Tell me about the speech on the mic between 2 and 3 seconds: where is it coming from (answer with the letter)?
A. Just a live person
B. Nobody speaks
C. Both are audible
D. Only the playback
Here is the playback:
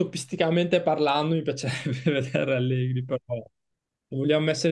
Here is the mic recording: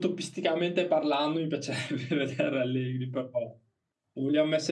D